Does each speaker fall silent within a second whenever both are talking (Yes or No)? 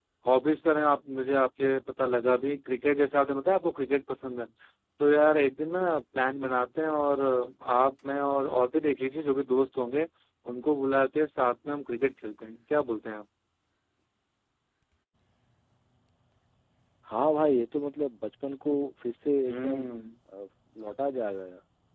Yes